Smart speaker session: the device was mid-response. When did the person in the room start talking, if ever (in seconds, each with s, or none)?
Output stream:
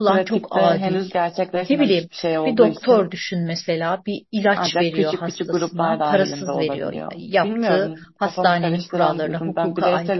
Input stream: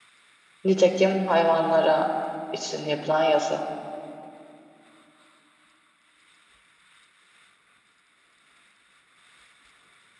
0.6 s